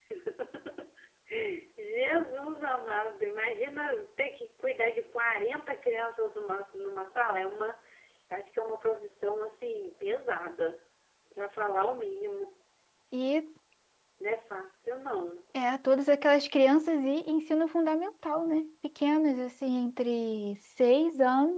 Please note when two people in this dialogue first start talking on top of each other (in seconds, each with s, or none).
none